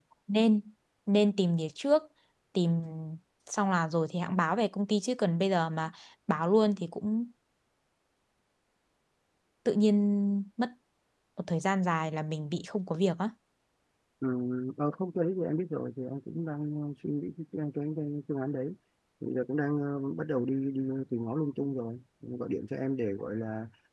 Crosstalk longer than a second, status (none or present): none